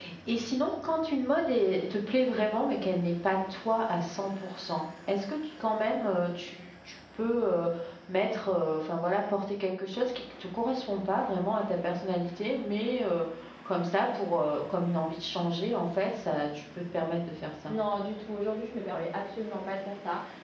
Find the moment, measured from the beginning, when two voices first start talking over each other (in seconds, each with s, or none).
none